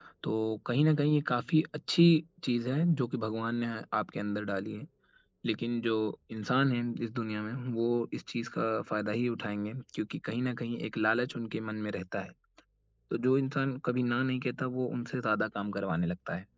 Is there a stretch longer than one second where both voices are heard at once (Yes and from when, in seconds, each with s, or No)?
No